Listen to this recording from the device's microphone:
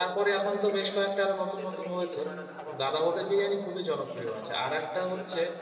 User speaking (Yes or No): Yes